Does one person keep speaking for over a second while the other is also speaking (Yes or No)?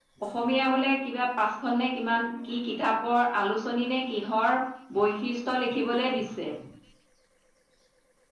No